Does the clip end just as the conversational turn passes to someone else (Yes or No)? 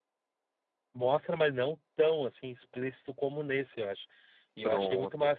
No